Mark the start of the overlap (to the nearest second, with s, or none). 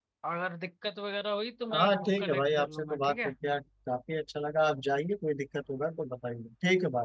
2 s